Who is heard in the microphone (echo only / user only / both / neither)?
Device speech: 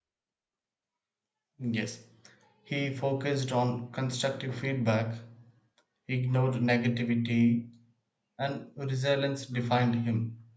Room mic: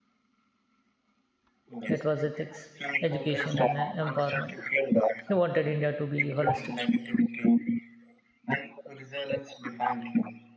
both